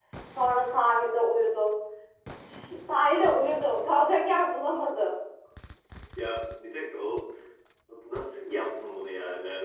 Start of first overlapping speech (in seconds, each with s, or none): none